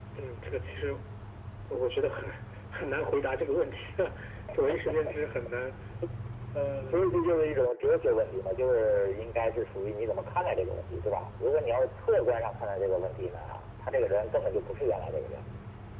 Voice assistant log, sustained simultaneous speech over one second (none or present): none